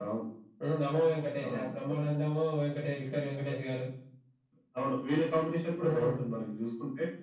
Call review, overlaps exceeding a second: none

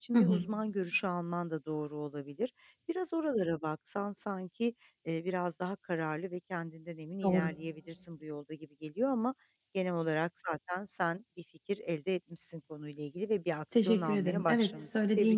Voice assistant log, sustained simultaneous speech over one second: present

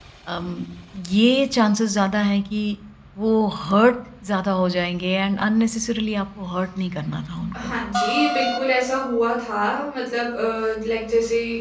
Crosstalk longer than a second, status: none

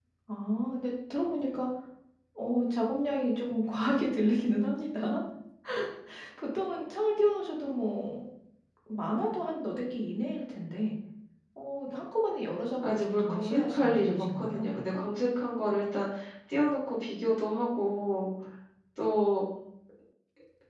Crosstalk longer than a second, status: present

